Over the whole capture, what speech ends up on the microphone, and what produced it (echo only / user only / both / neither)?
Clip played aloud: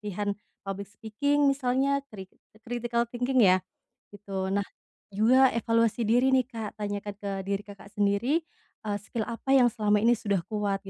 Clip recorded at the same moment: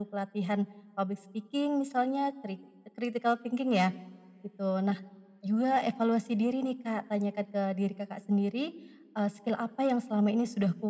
echo only